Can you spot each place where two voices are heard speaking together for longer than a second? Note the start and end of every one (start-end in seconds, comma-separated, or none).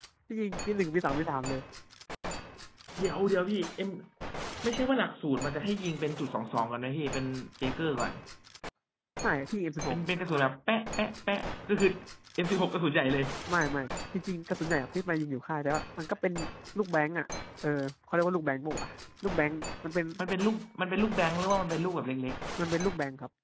none